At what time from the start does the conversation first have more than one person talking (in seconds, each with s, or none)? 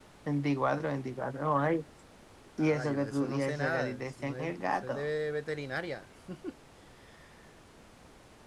2.6 s